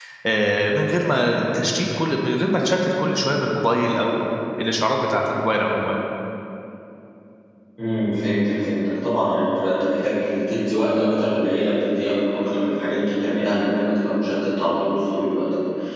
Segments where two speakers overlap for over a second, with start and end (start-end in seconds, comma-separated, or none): none